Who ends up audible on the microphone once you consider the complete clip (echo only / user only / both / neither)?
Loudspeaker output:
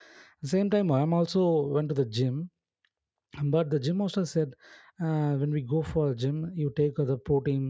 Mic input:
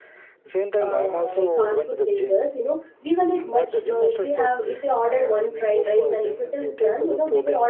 both